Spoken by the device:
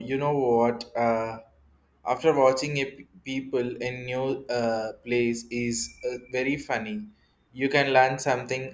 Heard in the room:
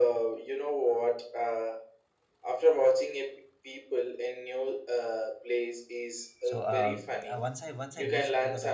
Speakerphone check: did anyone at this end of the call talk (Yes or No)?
Yes